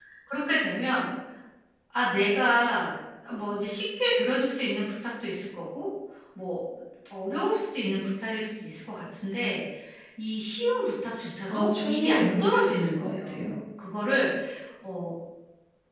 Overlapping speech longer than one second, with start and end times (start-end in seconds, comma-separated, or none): 11.5-13.5